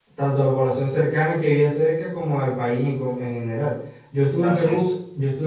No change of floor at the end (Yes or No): Yes